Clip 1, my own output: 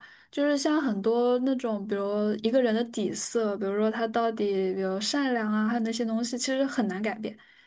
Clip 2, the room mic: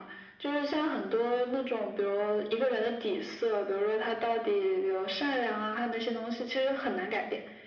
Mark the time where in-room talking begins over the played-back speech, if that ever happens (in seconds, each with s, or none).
none